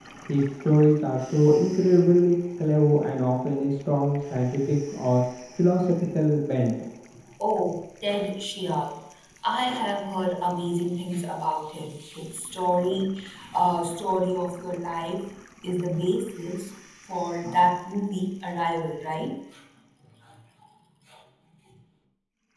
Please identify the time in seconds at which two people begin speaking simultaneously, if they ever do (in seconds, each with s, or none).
none